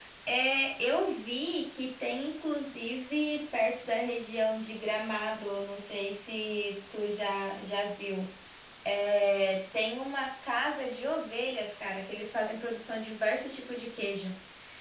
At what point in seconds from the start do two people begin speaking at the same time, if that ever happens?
none

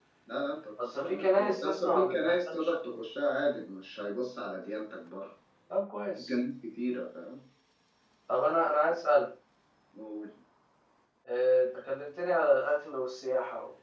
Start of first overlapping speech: 1.0 s

